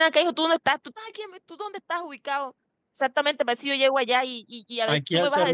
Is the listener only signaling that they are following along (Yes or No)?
No